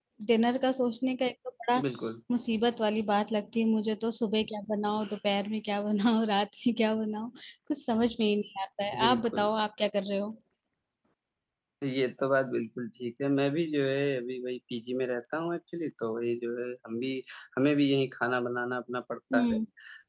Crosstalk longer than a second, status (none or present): none